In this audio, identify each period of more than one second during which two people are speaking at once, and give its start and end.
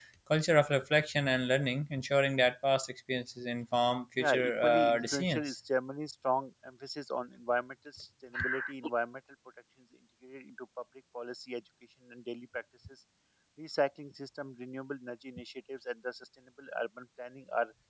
4.2-5.5

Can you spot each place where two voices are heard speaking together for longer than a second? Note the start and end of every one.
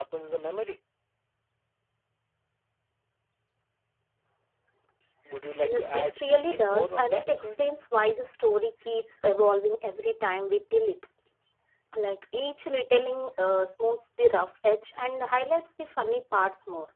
5.7-7.7

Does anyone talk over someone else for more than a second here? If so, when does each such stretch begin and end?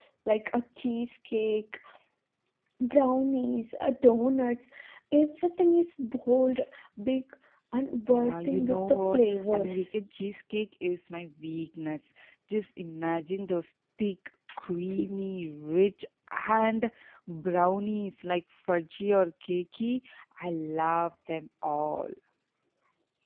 8.1-9.8

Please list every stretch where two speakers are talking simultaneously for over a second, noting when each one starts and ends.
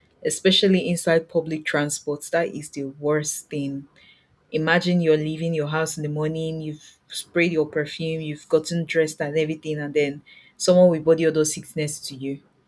none

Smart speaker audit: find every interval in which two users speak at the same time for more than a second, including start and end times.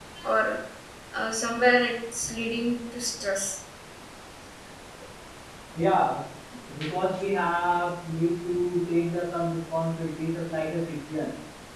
none

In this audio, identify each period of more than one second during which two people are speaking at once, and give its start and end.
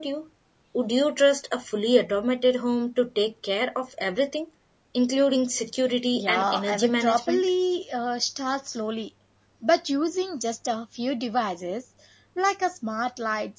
6.2-7.5

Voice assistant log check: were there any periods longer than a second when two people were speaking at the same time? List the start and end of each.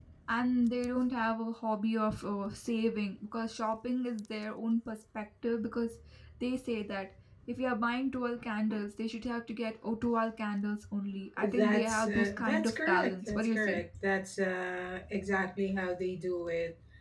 11.4-13.8

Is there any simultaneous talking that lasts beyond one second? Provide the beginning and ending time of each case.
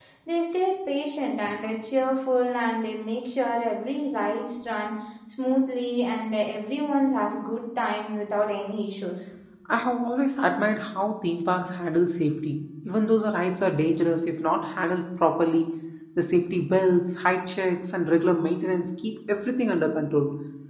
none

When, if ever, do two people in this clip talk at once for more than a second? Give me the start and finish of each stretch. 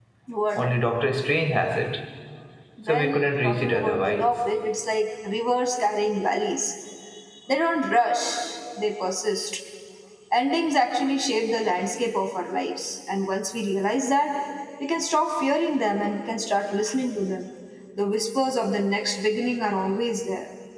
2.9-4.4

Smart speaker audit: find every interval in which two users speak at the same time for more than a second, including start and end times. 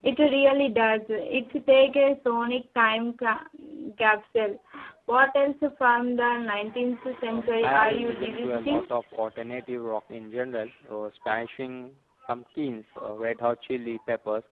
7.3-8.8

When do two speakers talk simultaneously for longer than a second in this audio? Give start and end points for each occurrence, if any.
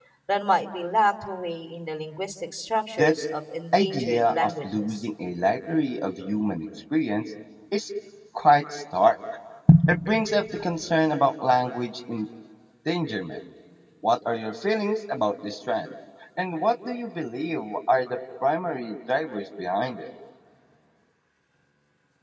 3.7-5.0

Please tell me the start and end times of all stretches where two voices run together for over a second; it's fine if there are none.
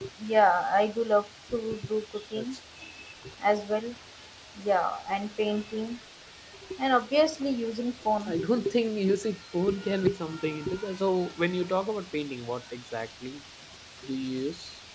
none

